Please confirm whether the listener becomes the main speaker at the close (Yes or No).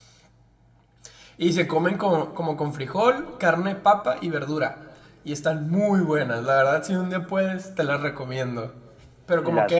Yes